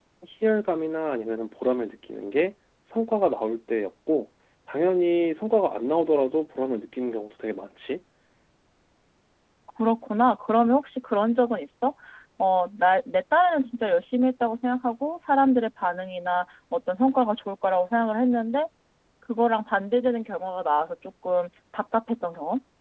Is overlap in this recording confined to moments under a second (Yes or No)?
Yes